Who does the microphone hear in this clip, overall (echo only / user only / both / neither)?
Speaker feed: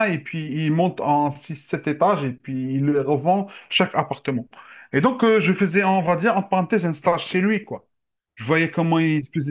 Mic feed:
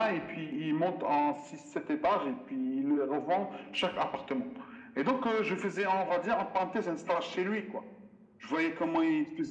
echo only